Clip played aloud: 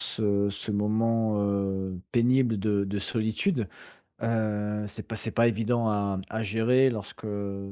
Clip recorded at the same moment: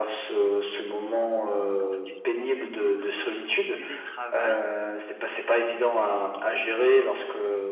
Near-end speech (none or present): present